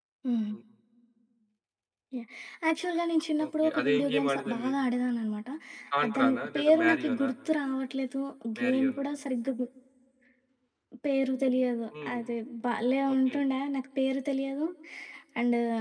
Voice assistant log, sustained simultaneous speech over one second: present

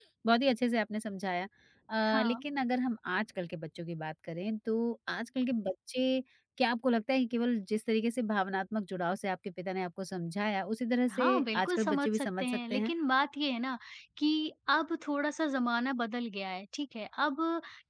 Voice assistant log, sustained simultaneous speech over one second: present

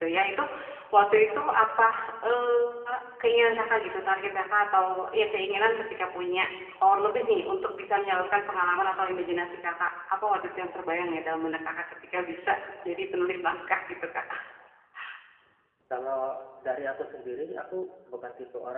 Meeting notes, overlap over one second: none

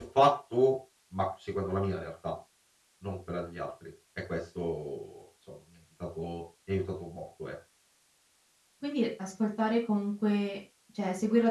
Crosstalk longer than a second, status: none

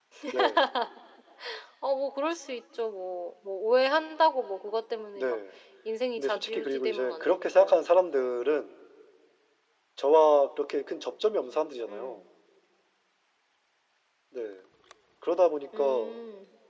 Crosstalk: present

